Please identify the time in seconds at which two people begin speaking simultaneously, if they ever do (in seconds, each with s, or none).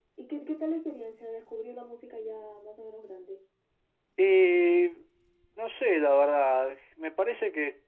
none